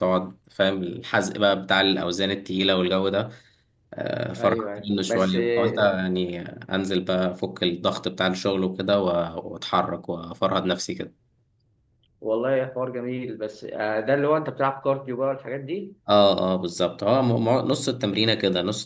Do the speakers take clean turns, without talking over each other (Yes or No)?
No